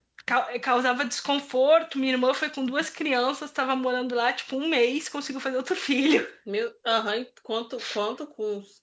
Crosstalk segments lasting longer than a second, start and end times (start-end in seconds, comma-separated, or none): none